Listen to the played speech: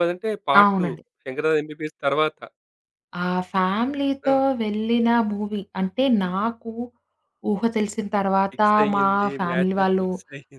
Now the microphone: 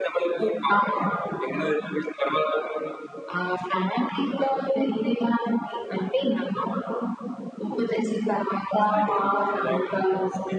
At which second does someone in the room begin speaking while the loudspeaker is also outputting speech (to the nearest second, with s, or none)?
none